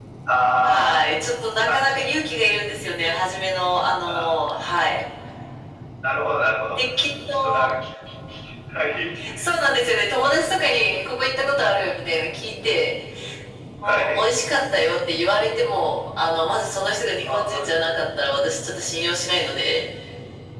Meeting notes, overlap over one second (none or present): none